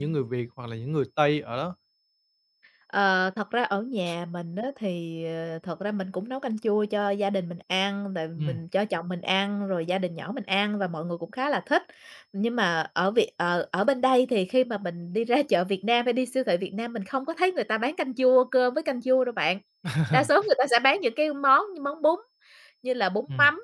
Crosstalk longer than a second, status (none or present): none